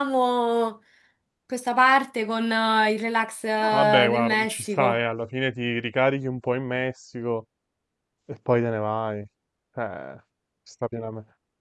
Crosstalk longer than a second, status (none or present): present